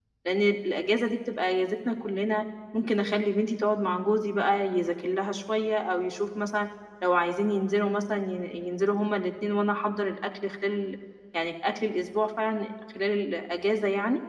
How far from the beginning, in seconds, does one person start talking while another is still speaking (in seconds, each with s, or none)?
none